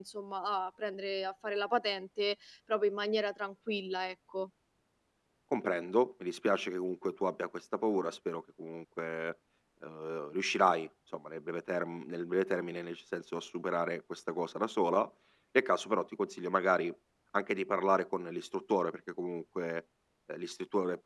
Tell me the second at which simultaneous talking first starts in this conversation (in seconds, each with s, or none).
none